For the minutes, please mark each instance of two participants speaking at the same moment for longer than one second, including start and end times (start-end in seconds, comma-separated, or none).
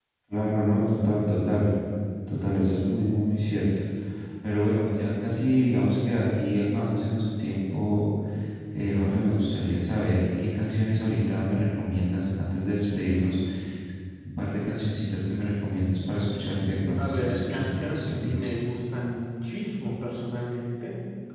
17.0-18.5